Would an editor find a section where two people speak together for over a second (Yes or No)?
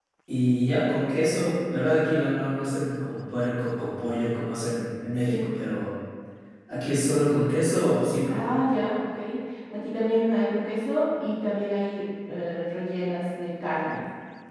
No